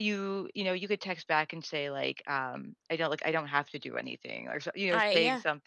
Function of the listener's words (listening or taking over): listening